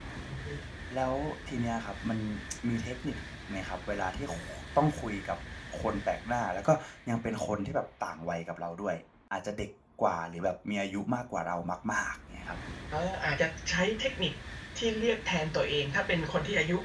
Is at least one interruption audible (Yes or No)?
No